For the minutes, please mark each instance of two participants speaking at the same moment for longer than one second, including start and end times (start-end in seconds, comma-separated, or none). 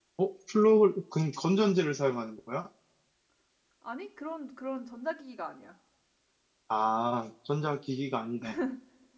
none